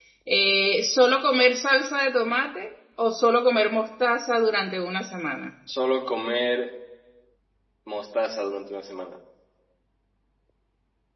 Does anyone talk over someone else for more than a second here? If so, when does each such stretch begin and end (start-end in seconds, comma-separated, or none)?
none